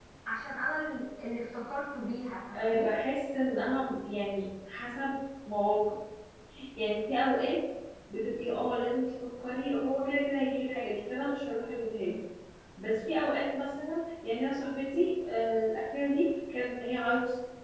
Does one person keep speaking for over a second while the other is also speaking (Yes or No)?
No